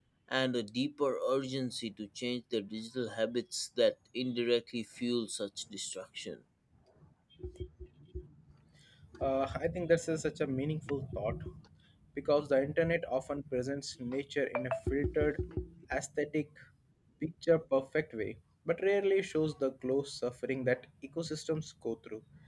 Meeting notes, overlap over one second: none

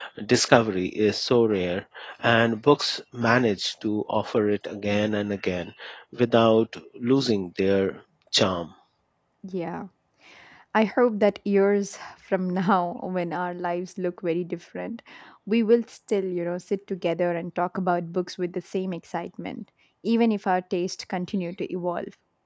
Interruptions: none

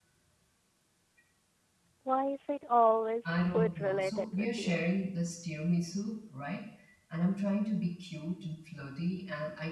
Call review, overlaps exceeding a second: present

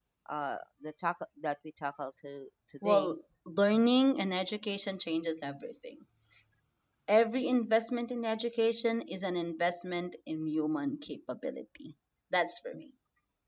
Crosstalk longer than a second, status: none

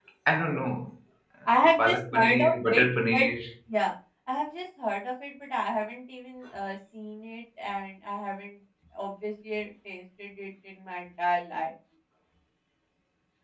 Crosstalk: present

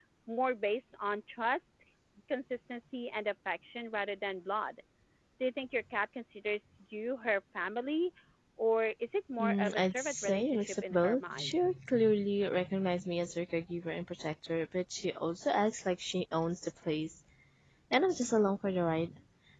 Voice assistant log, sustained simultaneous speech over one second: present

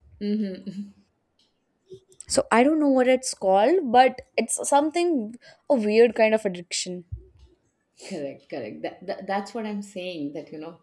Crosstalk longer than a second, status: none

